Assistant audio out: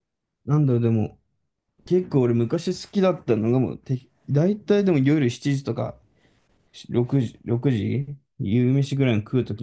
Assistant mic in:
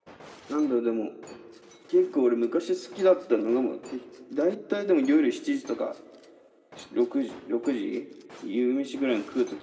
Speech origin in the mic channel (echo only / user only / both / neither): echo only